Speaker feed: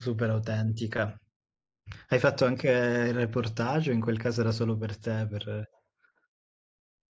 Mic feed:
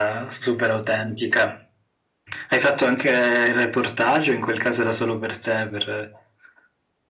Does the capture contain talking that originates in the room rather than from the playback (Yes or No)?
No